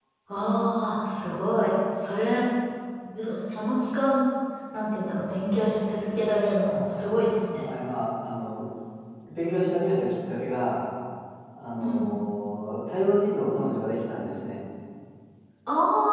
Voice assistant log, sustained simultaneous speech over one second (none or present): none